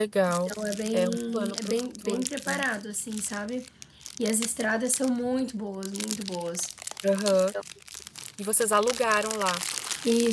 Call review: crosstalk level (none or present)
present